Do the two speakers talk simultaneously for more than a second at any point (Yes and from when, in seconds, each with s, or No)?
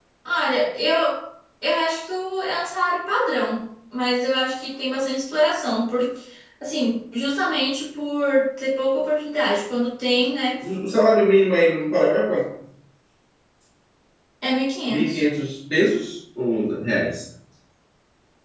No